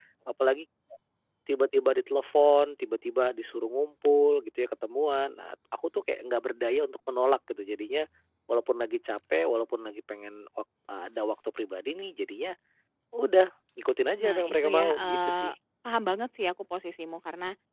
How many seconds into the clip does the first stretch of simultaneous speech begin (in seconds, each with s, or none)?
14.2 s